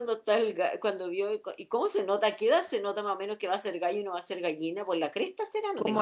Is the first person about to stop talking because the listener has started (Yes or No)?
Yes